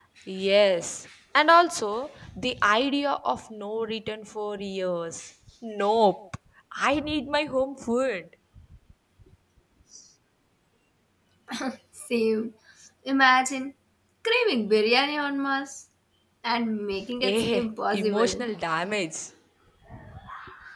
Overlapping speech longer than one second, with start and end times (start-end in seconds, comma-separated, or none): 17.2-18.5